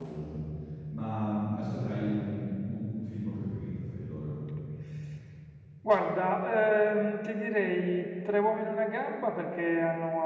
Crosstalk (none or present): none